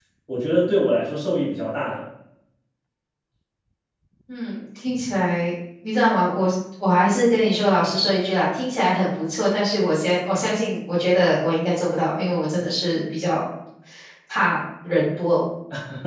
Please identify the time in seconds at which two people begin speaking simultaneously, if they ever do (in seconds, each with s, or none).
none